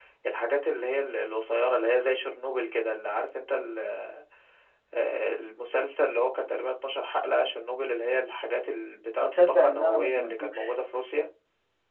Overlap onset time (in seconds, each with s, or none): 9.2 s